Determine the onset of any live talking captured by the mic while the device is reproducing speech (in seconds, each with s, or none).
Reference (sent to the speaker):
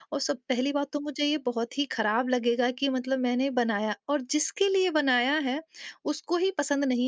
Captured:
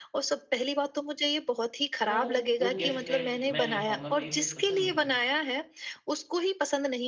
2.0 s